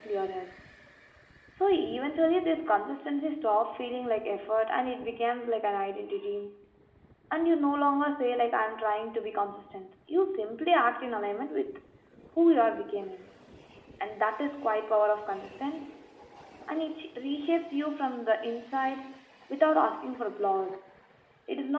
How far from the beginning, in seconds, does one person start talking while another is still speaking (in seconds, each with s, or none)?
none